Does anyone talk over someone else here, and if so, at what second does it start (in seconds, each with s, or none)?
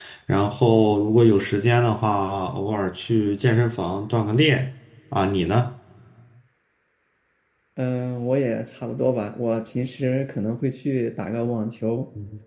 none